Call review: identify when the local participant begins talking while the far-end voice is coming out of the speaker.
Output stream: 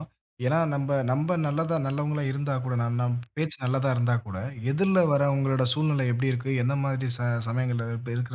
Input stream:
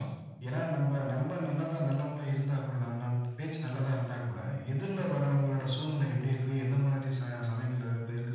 none

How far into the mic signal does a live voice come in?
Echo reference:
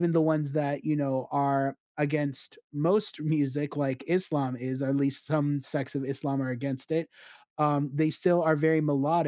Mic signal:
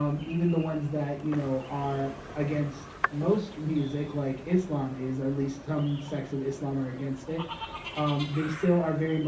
none

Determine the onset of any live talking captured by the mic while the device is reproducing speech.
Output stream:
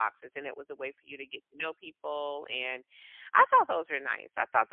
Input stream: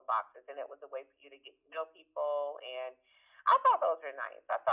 none

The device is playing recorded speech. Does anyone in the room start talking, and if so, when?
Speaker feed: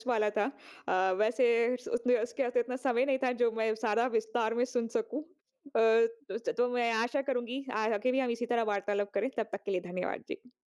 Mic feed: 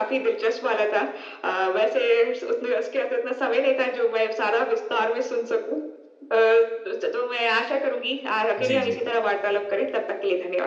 8.6 s

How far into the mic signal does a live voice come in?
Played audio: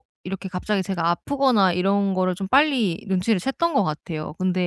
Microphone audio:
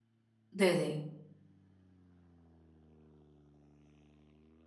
0.5 s

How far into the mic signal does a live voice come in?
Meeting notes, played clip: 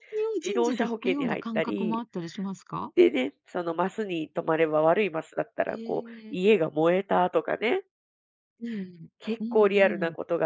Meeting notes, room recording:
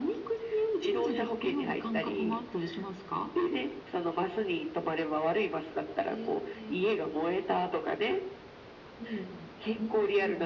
none

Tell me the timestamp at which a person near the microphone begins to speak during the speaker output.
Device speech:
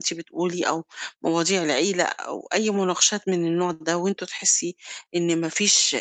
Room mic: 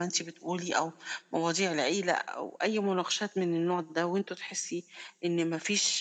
none

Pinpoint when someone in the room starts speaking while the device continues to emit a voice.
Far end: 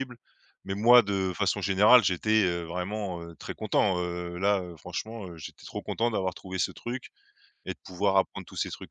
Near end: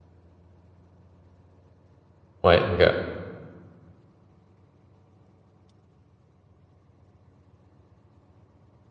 2.4 s

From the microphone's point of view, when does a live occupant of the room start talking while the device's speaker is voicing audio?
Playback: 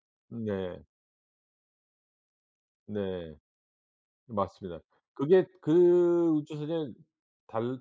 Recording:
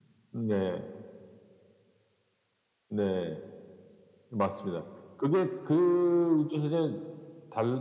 none

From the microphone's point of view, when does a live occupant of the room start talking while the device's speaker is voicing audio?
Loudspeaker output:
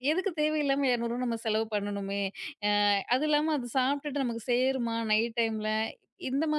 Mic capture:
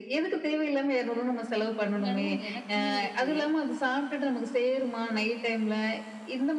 2.0 s

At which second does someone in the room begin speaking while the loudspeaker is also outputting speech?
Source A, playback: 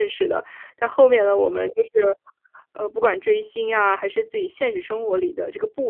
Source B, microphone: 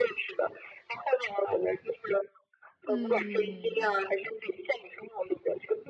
2.9 s

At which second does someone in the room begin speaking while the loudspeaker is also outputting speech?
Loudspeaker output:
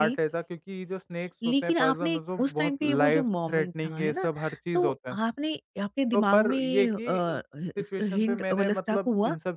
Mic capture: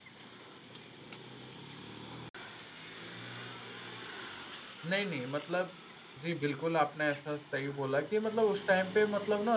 4.8 s

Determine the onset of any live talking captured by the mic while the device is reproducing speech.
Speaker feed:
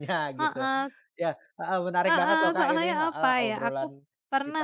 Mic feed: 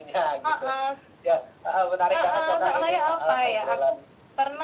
none

